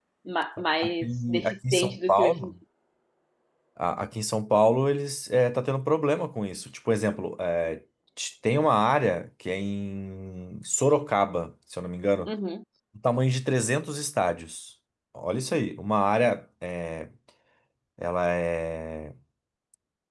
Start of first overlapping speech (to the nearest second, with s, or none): 1 s